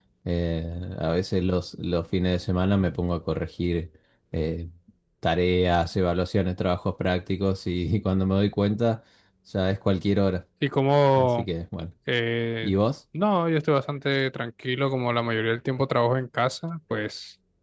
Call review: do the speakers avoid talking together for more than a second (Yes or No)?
Yes